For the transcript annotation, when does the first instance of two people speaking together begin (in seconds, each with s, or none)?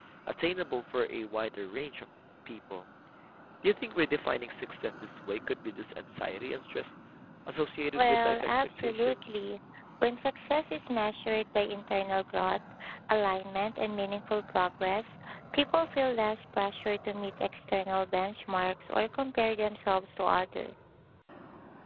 8.0 s